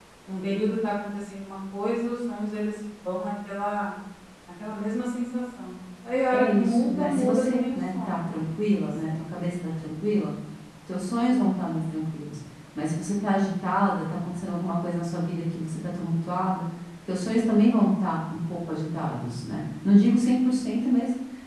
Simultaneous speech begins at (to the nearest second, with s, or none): 6 s